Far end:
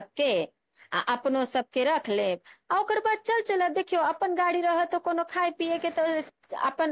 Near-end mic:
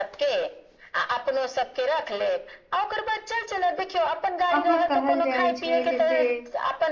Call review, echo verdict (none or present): present